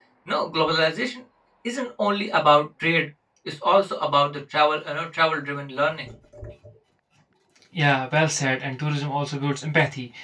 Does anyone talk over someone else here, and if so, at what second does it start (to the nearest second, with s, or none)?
none